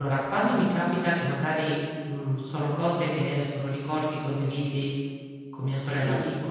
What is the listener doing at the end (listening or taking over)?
listening